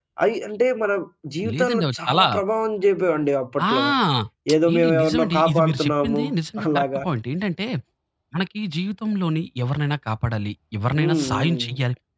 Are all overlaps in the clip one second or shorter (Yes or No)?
No